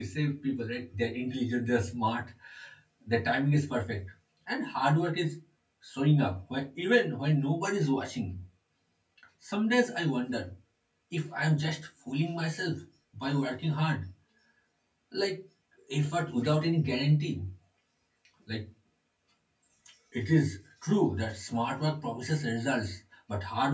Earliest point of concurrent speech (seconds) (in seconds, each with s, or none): none